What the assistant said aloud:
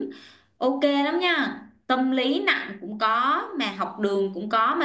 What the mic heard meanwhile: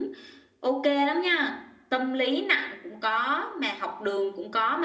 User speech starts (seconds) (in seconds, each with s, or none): none